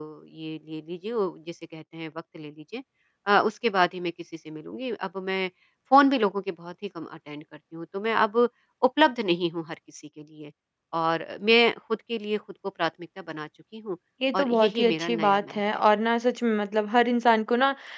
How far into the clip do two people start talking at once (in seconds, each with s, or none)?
14.3 s